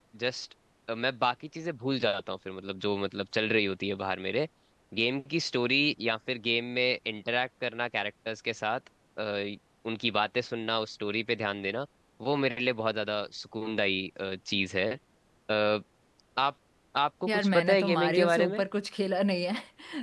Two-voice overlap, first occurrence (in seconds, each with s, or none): 17.3 s